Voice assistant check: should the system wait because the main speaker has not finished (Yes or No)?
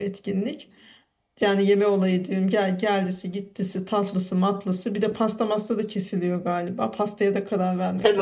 No